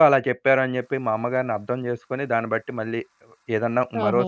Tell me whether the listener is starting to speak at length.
Yes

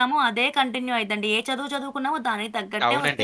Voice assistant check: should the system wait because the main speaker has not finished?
No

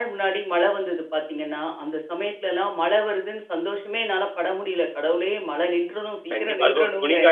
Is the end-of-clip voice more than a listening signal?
Yes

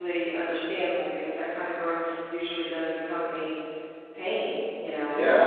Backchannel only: No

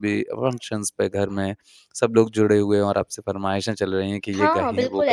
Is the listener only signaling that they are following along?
No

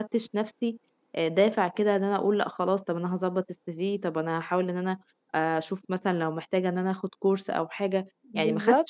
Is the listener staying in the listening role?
Yes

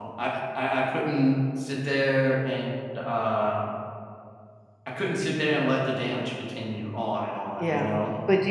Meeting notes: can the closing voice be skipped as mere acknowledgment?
No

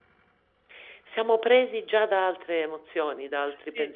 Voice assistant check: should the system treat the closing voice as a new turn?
Yes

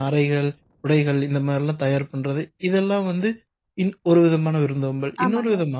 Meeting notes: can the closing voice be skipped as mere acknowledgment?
Yes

